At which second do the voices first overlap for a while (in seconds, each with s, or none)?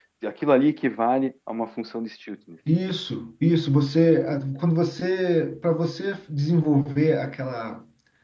none